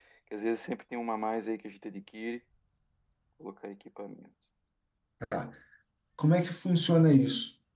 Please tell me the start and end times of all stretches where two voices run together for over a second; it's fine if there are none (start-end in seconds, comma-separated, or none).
none